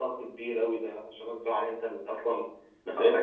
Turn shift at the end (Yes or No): No